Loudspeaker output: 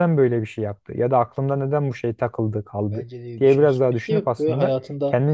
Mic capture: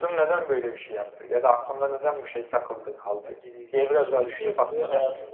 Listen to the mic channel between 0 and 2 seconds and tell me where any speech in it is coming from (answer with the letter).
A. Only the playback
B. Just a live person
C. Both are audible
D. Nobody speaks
A